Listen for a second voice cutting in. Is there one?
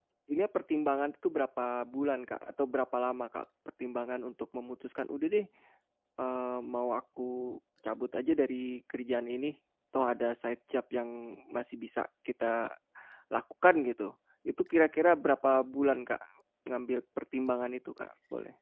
No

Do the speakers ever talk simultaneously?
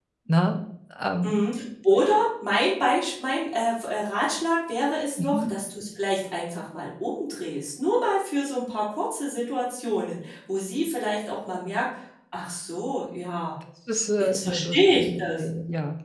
Yes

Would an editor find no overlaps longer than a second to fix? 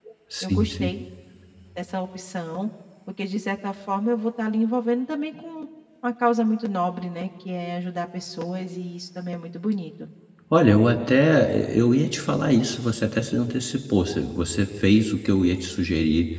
Yes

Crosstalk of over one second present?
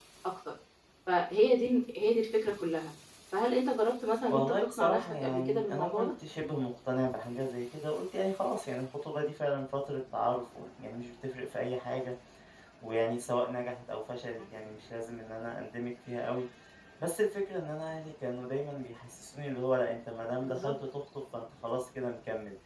Yes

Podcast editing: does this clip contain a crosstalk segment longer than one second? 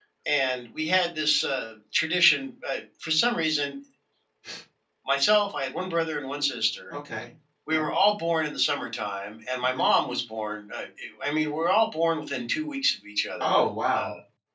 No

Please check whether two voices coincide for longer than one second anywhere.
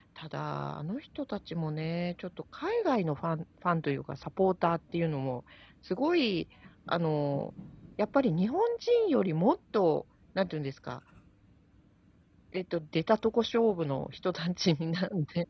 No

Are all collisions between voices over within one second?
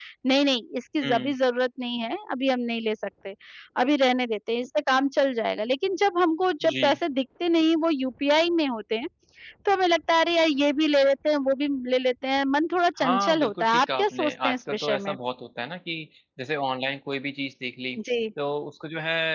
No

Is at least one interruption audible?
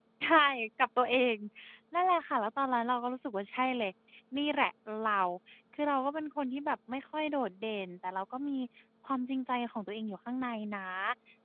No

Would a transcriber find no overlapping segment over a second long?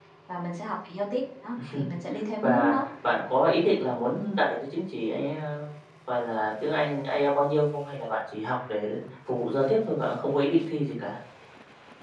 Yes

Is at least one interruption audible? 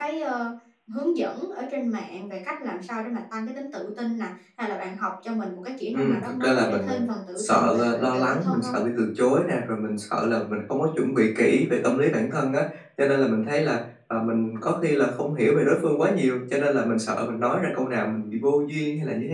Yes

